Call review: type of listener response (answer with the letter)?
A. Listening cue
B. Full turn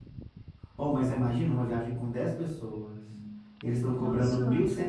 A